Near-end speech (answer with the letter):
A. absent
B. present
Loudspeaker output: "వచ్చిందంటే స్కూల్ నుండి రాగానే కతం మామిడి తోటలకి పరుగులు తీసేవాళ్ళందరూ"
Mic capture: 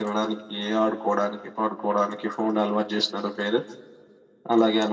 B